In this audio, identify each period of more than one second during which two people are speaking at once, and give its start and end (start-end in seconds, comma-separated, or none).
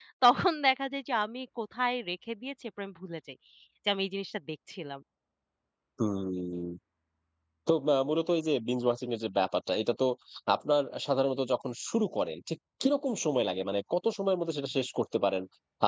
none